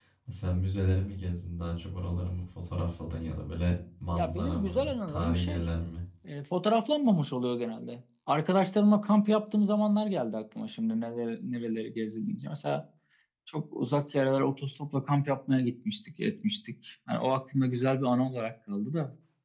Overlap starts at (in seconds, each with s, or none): 4.1 s